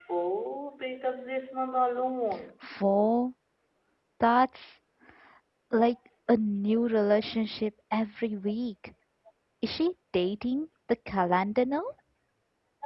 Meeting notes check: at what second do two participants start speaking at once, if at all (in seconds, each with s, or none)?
none